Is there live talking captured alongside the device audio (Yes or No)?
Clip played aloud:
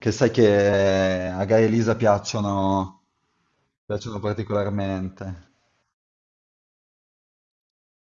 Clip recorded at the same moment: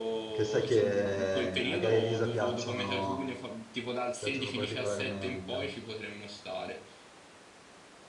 Yes